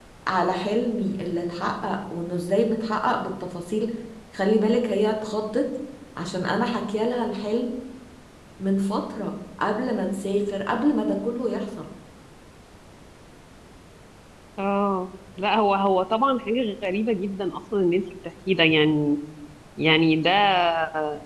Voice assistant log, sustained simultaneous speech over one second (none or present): none